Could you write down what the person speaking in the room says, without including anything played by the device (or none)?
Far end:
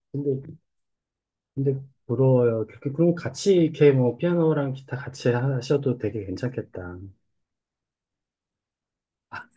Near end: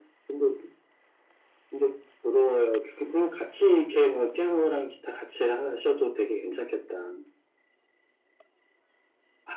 none